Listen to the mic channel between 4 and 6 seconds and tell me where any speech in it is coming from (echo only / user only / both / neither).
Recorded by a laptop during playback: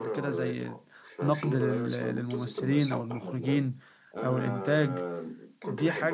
both